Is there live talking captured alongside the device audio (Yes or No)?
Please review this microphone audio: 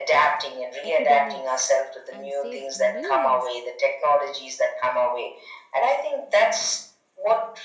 Yes